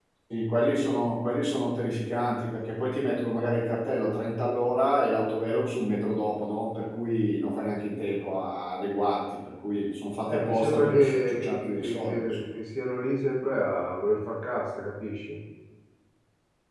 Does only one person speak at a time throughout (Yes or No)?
No